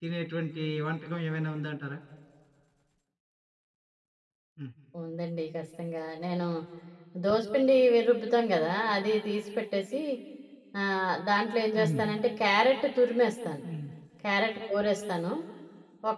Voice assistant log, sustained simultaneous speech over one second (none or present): none